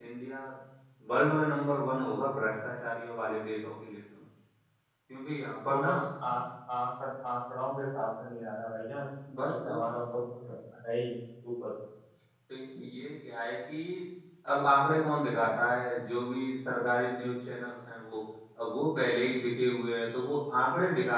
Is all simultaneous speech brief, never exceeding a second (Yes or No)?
Yes